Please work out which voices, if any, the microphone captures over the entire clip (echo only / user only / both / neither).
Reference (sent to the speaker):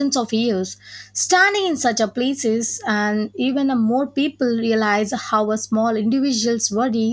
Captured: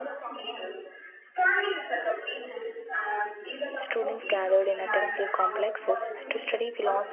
both